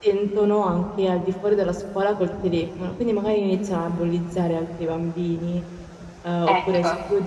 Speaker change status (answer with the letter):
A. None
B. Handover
A